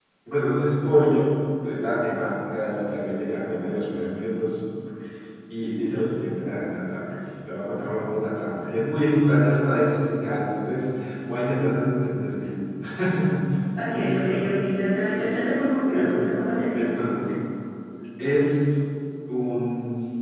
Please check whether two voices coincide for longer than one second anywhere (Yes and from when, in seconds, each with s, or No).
No